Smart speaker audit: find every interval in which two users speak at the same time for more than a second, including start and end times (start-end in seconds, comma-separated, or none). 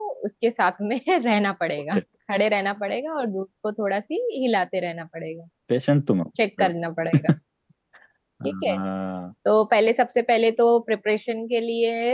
none